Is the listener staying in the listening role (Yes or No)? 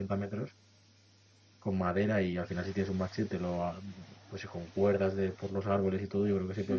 No